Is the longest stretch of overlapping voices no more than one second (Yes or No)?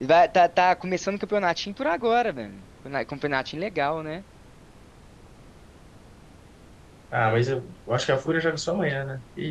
Yes